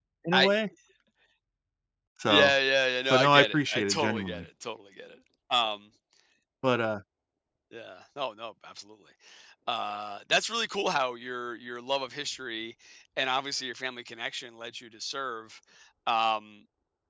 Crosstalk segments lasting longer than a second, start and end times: 3.1-4.5

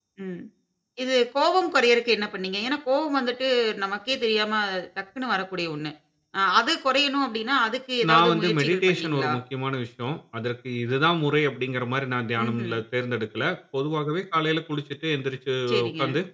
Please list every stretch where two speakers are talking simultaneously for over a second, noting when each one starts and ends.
8.1-9.3

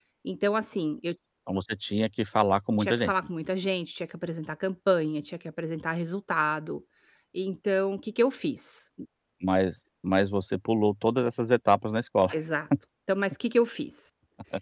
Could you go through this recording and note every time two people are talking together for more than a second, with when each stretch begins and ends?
none

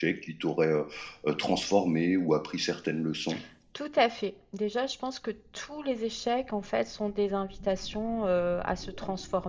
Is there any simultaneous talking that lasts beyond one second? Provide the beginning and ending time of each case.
none

